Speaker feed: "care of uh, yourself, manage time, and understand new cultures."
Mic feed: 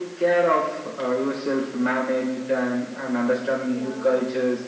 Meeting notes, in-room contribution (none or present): present